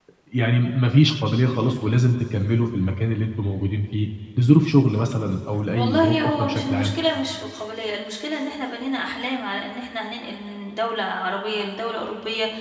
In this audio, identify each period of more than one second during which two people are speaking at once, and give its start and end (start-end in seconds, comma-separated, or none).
5.8-7.0